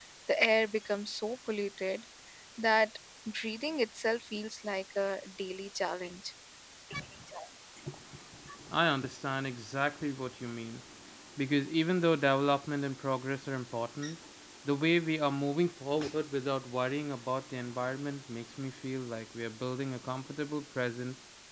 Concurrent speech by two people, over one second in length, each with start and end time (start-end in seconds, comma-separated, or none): none